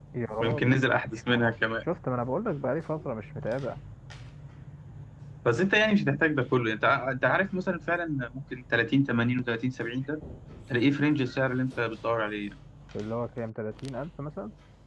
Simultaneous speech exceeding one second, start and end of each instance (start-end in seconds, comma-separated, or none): none